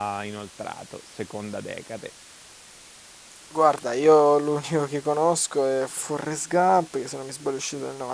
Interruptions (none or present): none